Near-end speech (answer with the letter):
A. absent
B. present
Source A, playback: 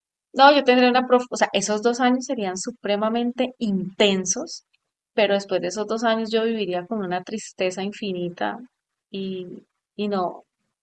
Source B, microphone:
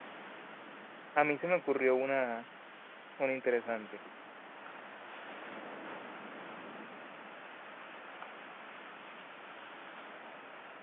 B